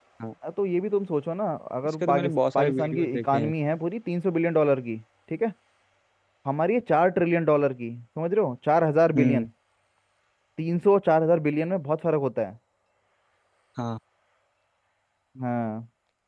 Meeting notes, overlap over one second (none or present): present